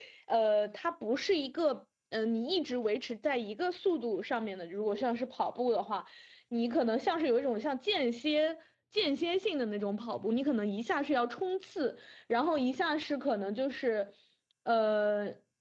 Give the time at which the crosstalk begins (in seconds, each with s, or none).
none